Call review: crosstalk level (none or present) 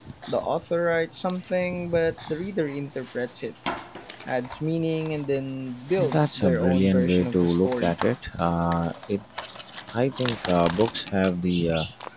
present